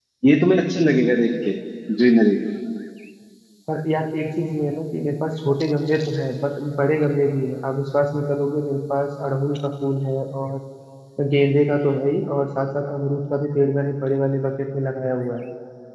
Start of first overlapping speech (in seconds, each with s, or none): none